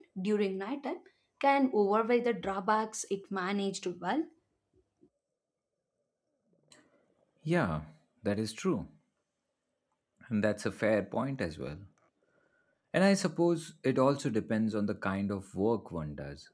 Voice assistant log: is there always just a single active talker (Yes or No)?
Yes